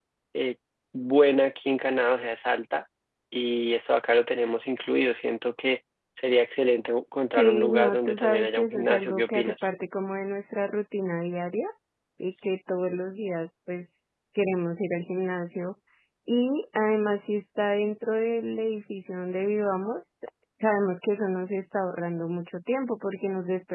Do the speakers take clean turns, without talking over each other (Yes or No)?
No